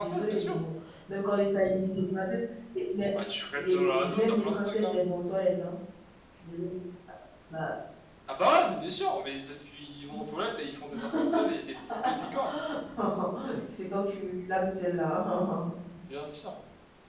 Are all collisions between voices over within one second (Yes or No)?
No